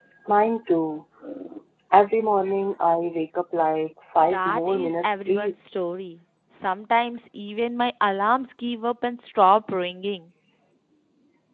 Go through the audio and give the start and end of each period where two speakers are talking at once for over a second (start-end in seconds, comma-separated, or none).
4.3-5.7